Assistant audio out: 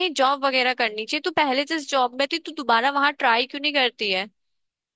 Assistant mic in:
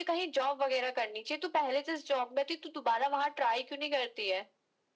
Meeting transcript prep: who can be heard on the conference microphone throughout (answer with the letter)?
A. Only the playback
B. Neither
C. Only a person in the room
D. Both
A